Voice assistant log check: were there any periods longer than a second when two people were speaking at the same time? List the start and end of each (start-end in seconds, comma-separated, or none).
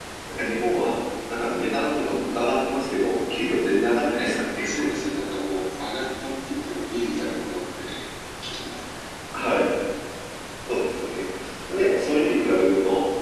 none